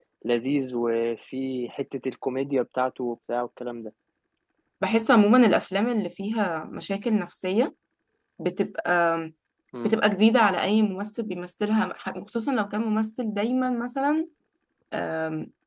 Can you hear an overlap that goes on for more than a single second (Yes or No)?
No